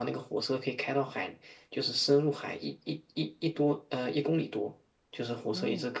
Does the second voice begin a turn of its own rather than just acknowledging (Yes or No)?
No